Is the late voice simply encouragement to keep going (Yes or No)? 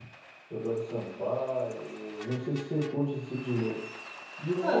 No